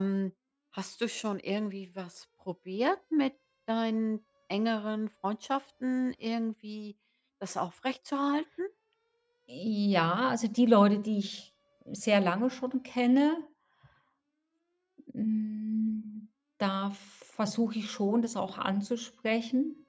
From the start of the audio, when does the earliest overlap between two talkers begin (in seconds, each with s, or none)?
none